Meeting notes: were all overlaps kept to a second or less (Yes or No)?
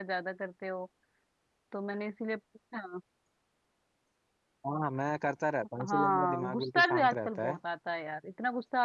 No